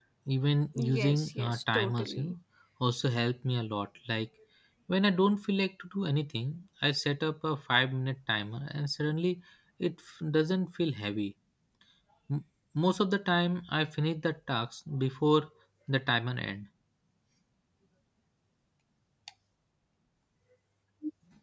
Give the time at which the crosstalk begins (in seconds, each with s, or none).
0.8 s